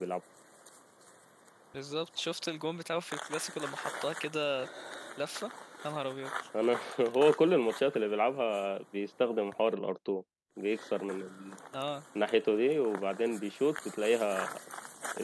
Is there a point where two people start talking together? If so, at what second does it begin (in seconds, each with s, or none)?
none